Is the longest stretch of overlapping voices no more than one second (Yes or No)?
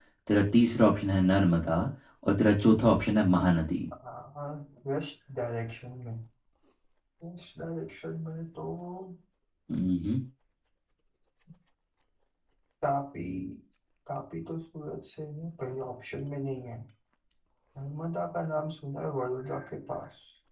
Yes